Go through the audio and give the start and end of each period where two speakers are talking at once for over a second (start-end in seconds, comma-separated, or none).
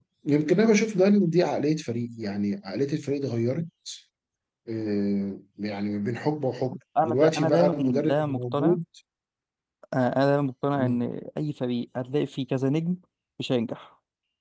7.0-8.8